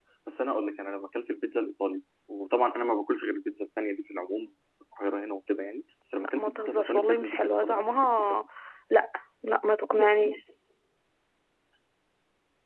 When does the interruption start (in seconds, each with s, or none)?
6.4 s